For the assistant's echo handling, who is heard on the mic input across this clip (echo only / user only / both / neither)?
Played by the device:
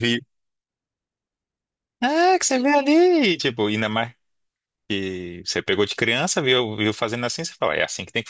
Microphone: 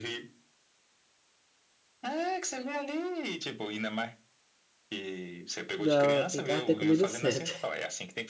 both